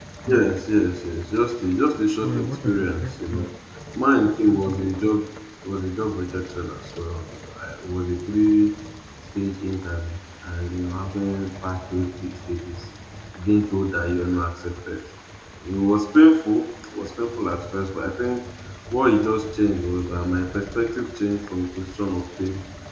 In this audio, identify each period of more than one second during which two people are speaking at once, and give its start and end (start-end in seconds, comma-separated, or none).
2.2-3.5